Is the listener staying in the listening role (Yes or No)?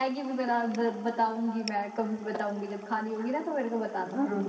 No